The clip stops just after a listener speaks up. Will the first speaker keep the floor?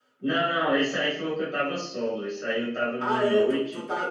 No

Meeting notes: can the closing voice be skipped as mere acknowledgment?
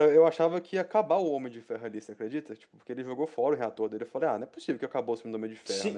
No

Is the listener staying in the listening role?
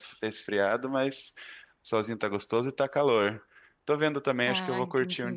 Yes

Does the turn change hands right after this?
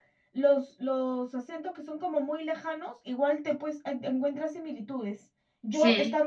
No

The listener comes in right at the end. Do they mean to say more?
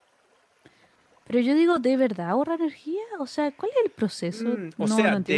Yes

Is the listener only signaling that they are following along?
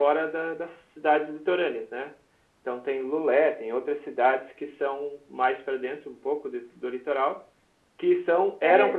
Yes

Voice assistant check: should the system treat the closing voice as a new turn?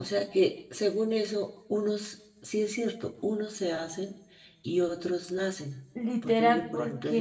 Yes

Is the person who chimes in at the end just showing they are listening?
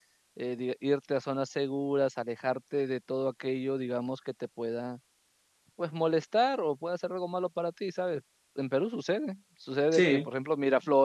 Yes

